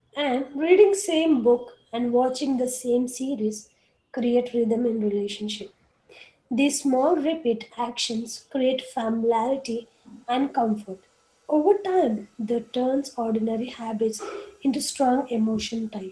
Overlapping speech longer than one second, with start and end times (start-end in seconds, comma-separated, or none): none